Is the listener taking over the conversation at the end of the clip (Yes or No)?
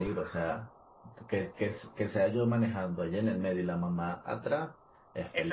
Yes